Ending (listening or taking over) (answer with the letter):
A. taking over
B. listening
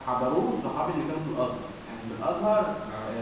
B